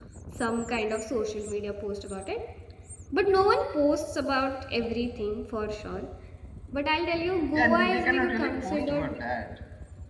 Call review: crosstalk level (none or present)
present